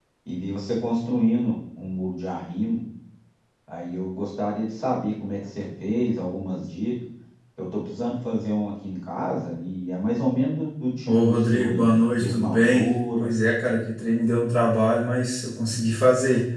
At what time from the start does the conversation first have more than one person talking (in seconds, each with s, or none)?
11.1 s